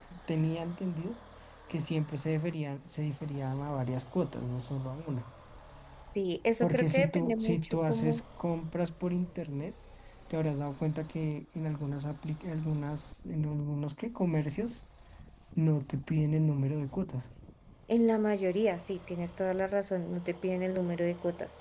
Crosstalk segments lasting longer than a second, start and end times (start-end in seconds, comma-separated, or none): 6.6-8.2